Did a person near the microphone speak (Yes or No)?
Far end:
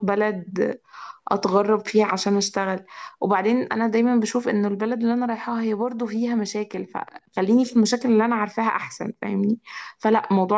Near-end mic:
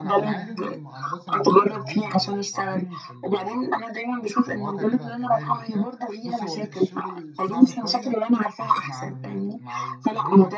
Yes